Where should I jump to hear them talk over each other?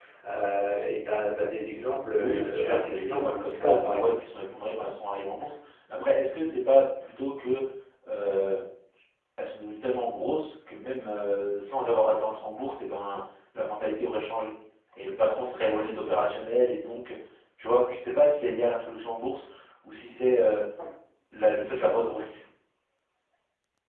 2.2 s

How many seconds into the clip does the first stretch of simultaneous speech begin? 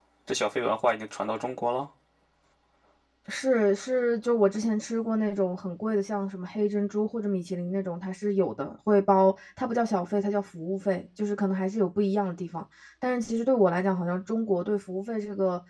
none

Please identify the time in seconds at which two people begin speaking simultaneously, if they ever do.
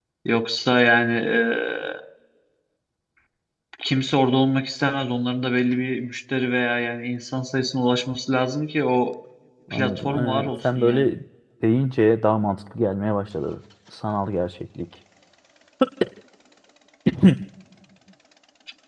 9.7 s

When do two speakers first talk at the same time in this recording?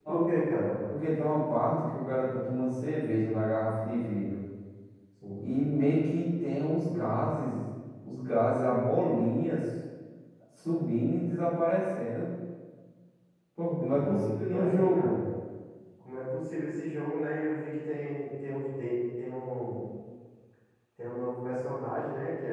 13.8 s

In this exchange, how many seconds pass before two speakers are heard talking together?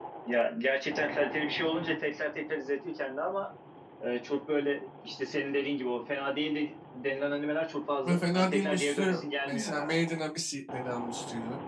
8.0 s

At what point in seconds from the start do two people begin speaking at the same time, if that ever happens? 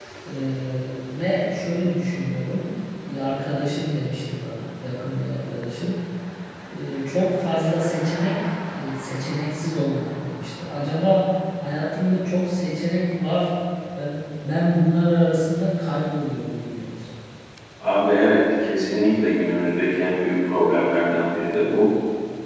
none

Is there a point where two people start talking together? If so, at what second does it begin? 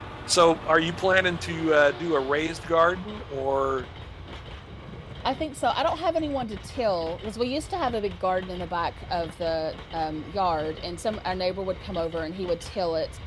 none

